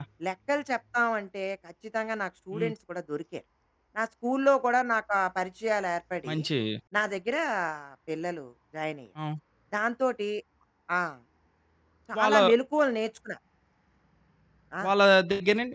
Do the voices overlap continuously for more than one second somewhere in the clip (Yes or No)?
No